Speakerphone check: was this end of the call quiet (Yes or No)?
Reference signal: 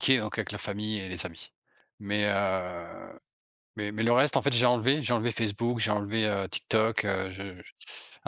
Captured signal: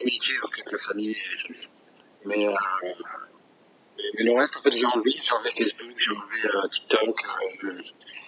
Yes